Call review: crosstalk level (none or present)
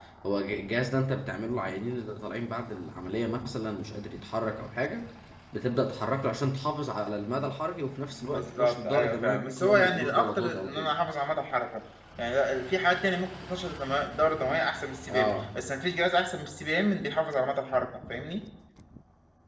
present